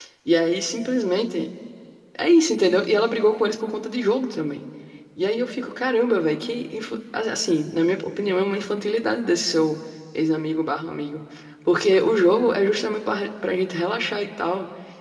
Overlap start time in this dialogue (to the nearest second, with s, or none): none